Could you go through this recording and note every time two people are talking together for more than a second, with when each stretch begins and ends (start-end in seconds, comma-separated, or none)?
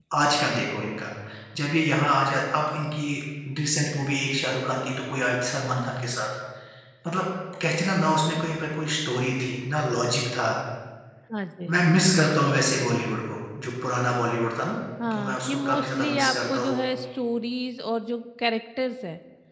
15.1-16.8